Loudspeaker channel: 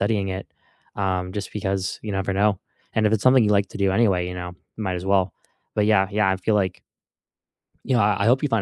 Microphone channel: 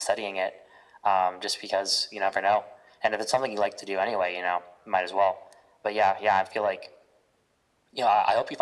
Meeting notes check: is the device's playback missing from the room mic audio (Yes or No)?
No